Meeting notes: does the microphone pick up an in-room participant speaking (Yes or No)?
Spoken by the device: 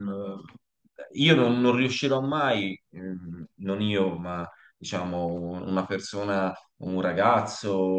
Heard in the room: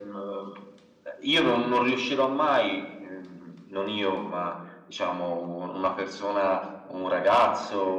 No